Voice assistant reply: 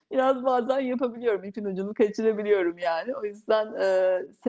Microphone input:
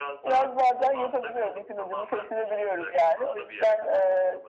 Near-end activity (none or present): present